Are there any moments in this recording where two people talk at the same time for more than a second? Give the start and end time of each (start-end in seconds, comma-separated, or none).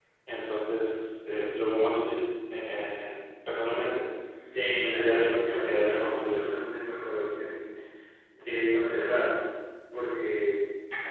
4.8-6.5